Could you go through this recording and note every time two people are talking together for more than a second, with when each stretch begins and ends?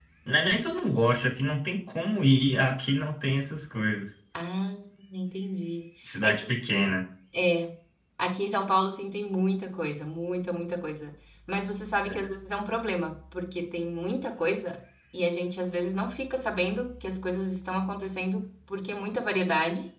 none

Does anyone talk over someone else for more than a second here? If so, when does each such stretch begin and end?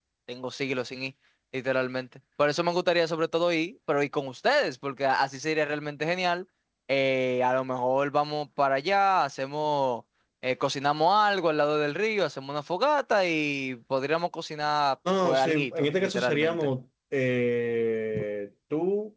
15.2-16.7

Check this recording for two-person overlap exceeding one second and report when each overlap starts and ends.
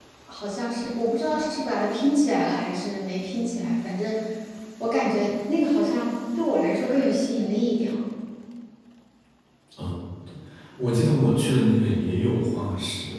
none

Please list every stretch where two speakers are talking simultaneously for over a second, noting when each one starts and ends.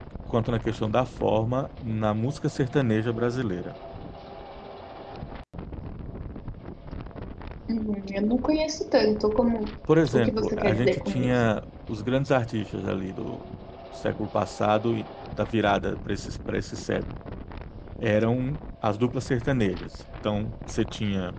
10.1-11.3

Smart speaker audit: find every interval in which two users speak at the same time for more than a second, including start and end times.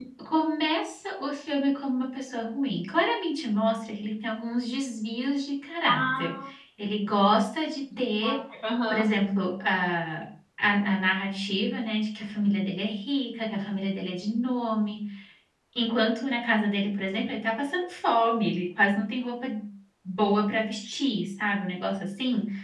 none

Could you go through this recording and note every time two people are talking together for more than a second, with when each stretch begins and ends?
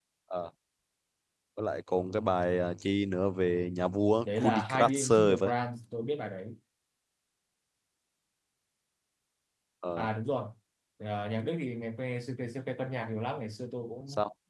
4.2-5.5

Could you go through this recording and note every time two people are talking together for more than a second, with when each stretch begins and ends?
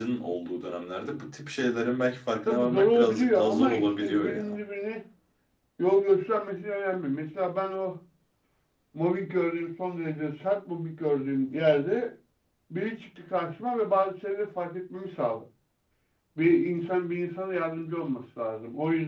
2.5-4.6

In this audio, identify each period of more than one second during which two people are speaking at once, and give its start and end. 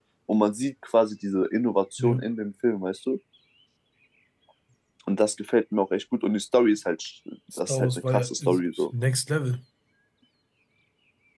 7.6-8.8

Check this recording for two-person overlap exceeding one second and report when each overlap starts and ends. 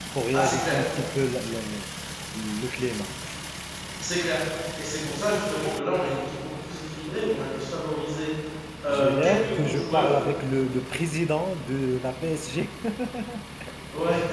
8.9-10.2

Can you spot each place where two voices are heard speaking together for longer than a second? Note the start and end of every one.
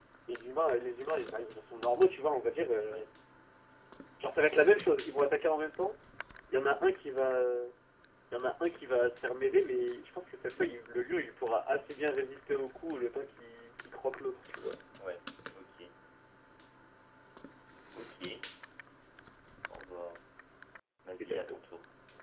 none

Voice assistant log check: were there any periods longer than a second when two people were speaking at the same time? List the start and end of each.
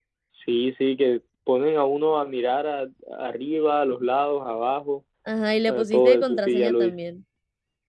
5.7-7.0

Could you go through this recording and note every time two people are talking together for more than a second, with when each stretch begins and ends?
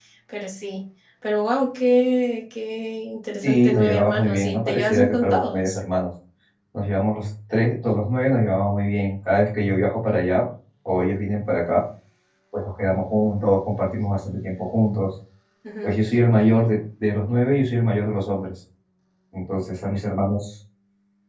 3.4-5.8

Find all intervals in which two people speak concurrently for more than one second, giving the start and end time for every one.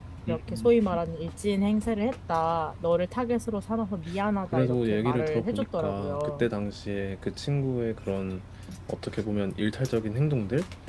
4.4-6.5

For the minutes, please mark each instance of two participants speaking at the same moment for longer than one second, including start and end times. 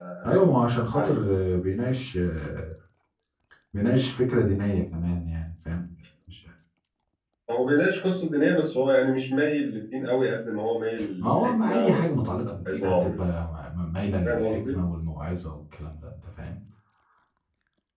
11.2-13.2

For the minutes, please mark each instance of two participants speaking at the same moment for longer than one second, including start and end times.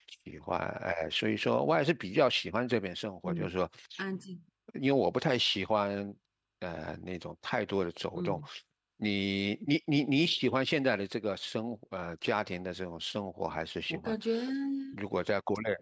none

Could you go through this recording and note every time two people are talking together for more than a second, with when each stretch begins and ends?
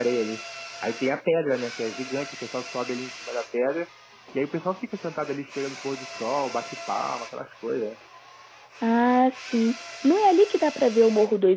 none

